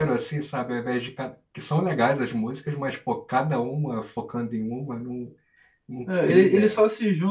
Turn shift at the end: Yes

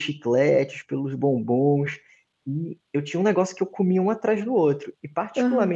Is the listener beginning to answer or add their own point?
No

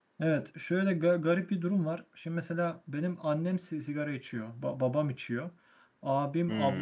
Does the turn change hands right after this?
No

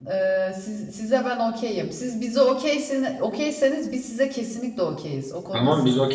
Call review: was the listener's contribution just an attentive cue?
No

